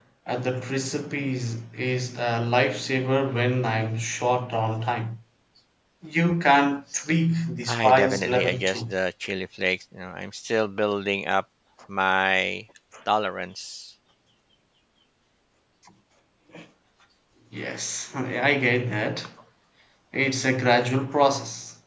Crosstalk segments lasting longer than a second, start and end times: 7.7-8.9

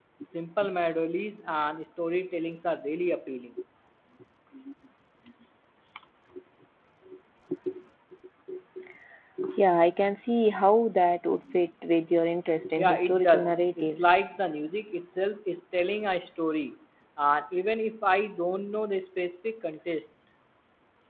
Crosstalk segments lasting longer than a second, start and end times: 12.8-14.2

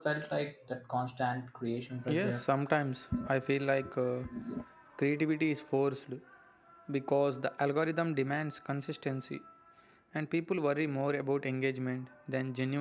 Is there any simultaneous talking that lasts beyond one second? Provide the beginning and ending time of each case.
none

